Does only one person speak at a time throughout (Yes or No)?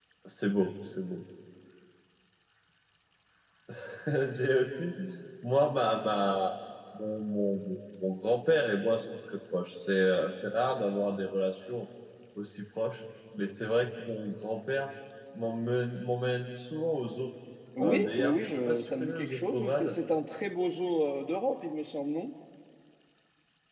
No